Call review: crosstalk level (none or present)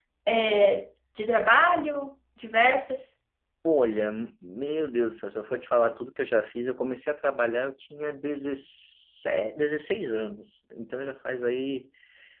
none